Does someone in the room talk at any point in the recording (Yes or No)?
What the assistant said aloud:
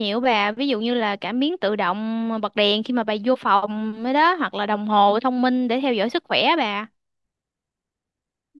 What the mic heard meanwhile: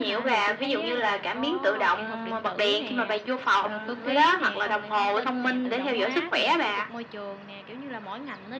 Yes